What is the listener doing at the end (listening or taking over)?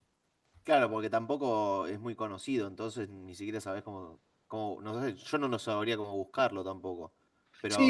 taking over